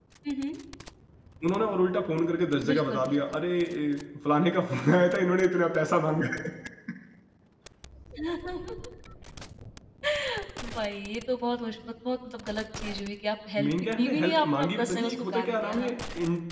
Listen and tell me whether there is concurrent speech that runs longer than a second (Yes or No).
Yes